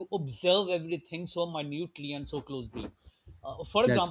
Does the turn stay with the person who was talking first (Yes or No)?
Yes